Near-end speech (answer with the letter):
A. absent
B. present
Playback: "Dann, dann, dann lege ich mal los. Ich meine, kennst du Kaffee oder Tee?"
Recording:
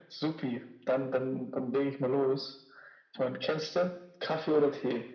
A